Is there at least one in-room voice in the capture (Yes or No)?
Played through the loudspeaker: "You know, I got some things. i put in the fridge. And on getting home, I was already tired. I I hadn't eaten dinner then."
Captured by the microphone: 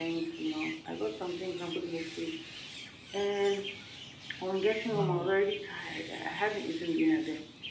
Yes